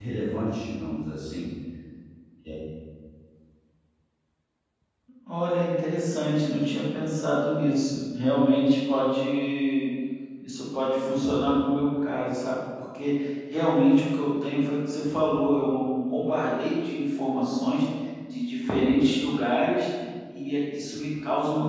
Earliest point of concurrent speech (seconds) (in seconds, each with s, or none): none